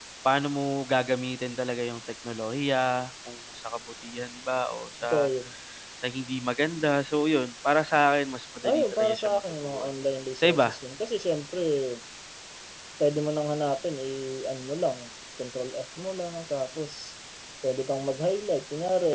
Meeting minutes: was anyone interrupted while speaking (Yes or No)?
Yes